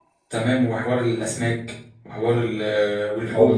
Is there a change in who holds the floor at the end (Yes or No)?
Yes